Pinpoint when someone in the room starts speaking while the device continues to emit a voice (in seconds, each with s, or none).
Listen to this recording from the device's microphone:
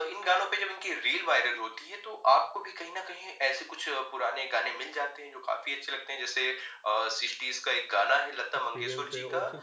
8.6 s